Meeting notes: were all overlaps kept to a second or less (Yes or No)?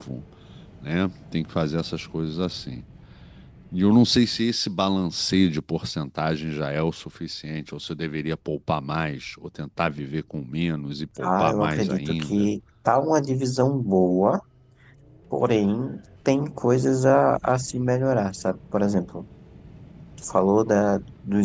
No